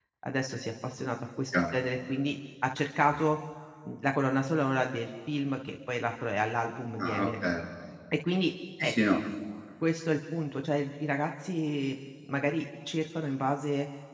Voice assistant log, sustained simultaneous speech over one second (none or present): none